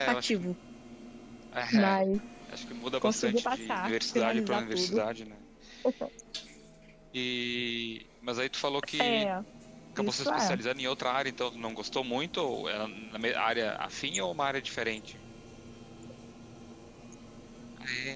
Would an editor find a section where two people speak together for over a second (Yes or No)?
Yes